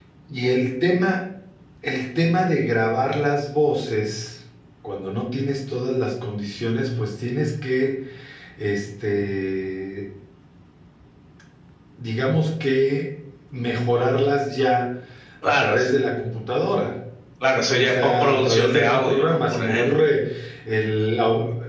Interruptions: present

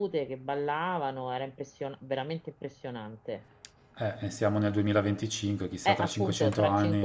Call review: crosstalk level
present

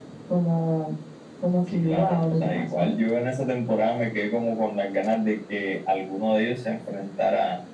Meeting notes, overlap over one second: present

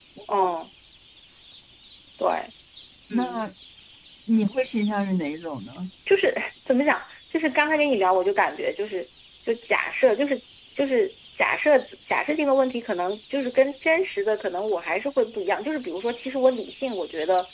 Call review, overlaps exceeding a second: none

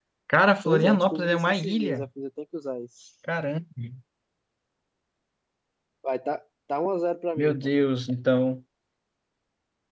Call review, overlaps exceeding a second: present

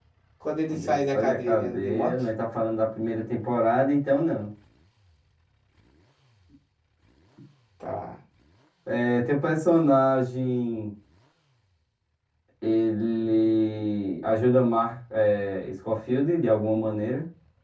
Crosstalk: present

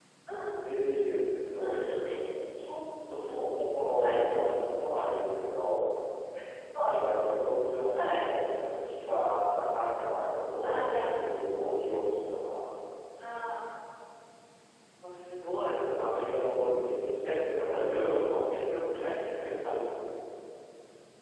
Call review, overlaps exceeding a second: none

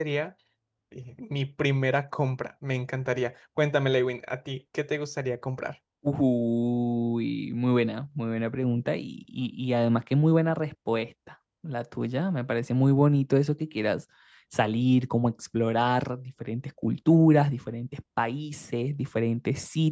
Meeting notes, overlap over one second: none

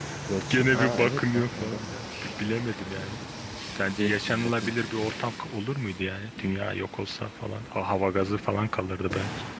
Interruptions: present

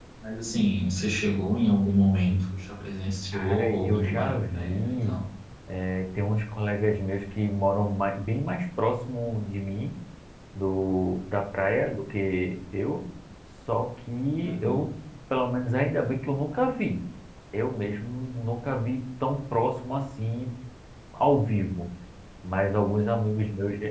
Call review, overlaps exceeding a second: present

